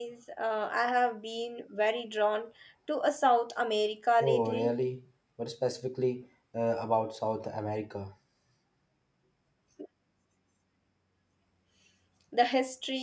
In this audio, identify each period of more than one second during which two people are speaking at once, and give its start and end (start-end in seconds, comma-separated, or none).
none